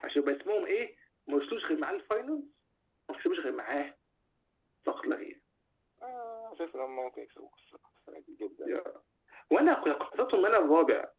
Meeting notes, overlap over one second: none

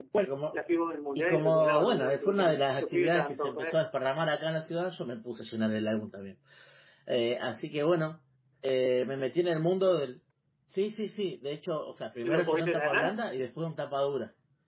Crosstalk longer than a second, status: present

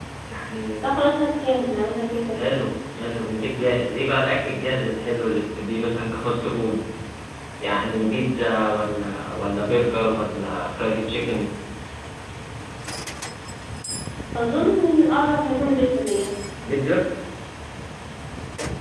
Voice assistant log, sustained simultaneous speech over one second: none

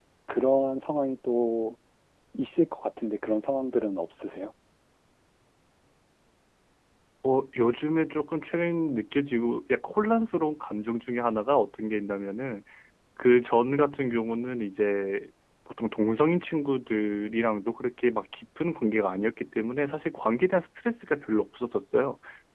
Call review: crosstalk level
none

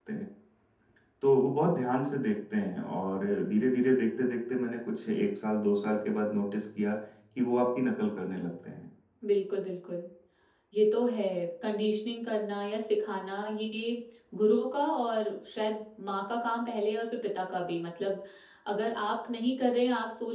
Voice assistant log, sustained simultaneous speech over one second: none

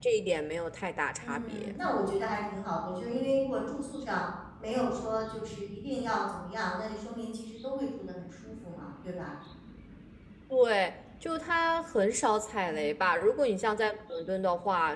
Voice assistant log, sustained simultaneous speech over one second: none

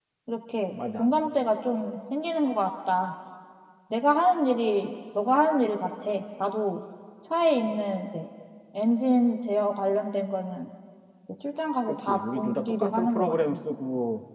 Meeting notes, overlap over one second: present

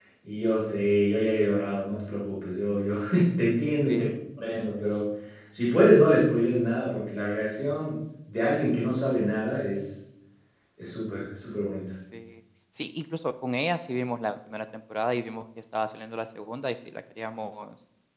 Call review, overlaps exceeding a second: none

